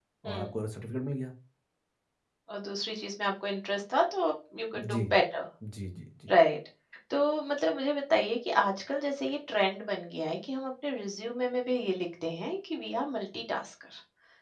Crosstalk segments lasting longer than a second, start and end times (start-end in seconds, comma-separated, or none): none